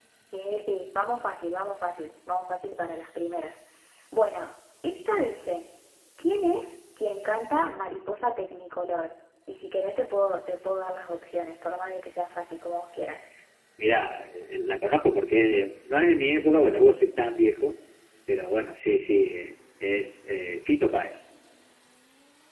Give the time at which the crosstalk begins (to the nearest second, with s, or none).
none